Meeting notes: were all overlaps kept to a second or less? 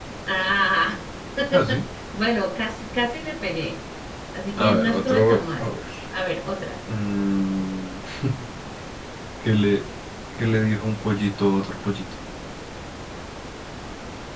No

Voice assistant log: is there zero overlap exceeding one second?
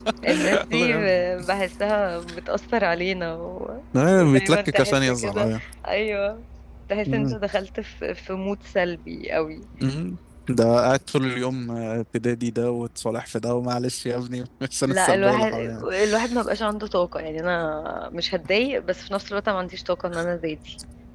No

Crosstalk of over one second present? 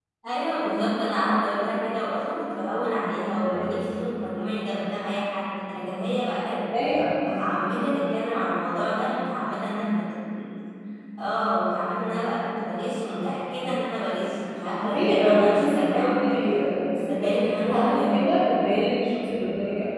Yes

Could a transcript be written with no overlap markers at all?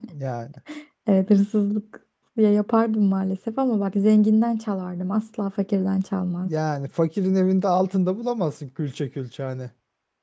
Yes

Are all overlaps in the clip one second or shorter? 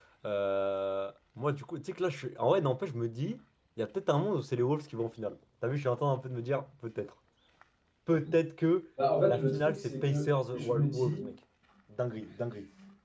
No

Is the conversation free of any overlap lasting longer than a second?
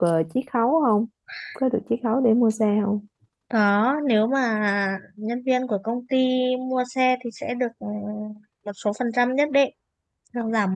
Yes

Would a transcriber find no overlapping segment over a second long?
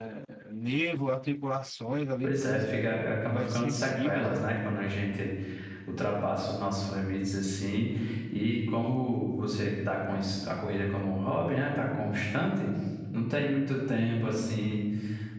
No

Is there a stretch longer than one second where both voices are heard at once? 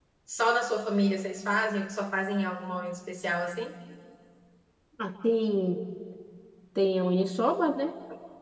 No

